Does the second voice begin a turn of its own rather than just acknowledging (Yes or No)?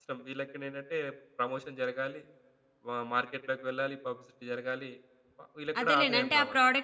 Yes